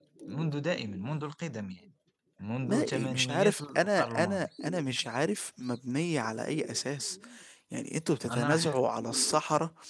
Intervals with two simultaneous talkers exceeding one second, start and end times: 2.7-4.5

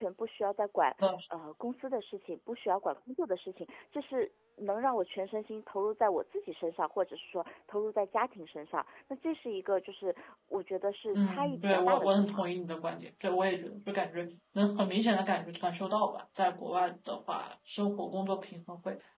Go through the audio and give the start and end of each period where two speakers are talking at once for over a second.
11.1-12.4

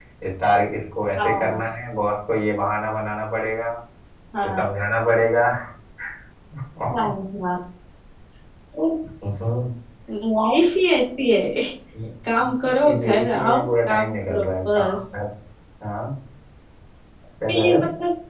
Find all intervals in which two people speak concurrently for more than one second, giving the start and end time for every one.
12.8-15.0

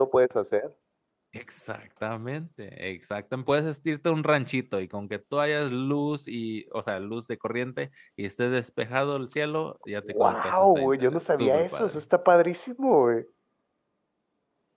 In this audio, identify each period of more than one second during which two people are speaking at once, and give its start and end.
10.1-12.0

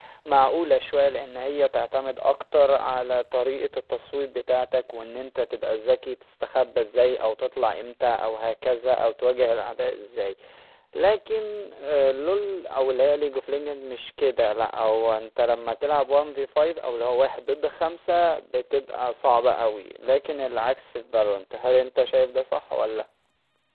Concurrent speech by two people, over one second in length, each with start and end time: none

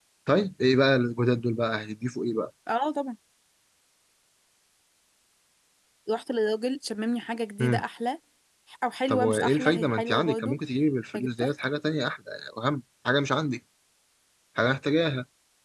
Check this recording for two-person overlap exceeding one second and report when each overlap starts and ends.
9.1-10.6

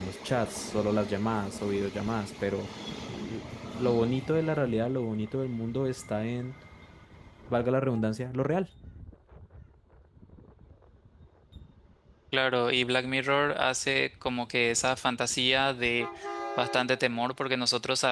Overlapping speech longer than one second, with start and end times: none

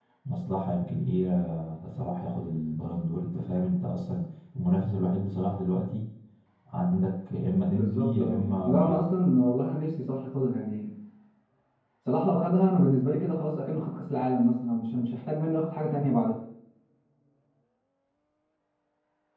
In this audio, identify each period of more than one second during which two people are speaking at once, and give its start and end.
7.7-9.1

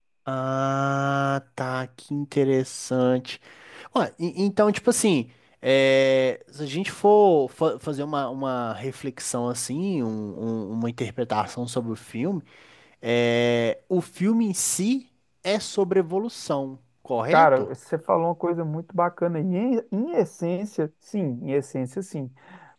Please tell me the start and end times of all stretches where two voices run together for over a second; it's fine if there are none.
none

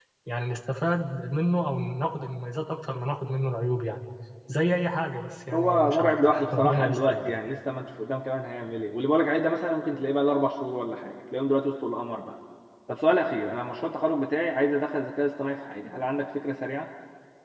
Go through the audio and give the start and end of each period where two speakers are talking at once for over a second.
5.5-7.3

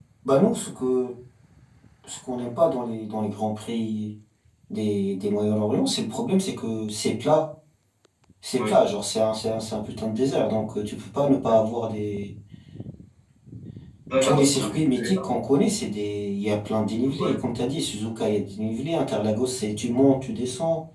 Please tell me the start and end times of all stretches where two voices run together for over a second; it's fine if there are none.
14.2-15.5

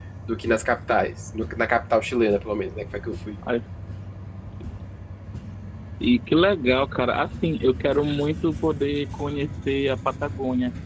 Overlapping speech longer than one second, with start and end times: none

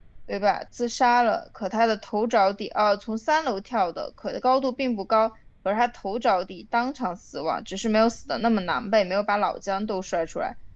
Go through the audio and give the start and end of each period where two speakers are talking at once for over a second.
none

